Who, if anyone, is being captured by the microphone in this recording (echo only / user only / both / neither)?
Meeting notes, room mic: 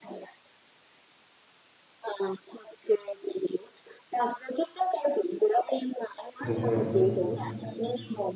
both